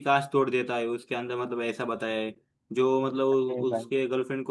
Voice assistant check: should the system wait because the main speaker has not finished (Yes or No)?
Yes